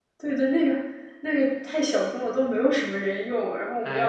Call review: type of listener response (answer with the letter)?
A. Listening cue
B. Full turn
B